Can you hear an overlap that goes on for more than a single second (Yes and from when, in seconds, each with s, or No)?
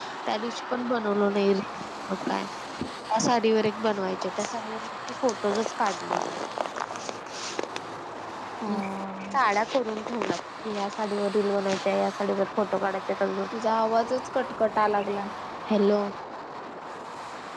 No